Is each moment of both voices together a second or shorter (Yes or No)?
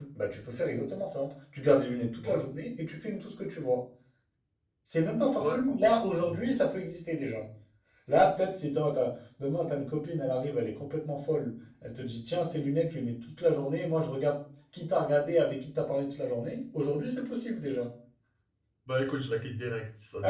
Yes